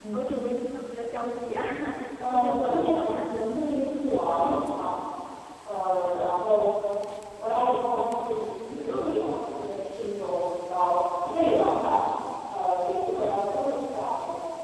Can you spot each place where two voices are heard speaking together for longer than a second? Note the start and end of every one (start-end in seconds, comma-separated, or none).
2.2-3.4